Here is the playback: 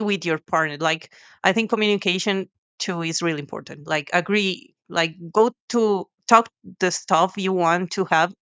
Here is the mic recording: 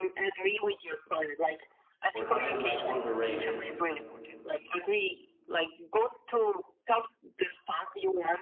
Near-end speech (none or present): present